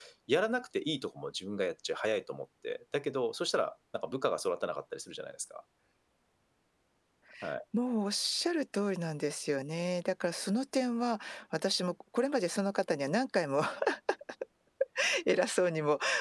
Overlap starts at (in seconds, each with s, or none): none